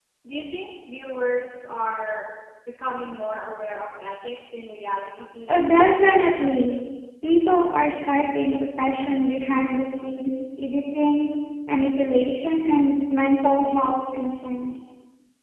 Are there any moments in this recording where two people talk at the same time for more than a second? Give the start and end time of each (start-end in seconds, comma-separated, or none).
none